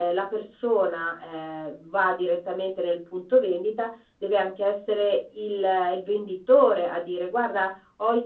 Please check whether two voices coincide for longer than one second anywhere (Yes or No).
No